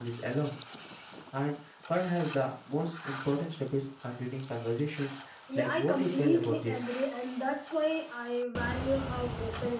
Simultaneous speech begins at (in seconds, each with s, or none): 5.5 s